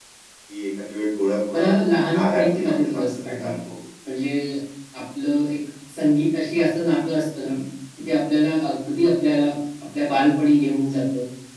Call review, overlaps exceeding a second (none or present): present